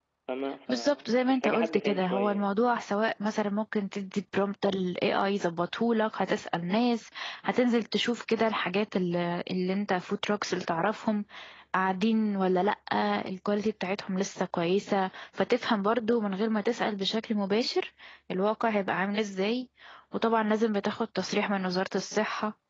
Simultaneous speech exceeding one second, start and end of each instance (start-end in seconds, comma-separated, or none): 0.7-2.5